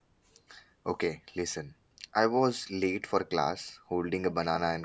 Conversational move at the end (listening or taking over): listening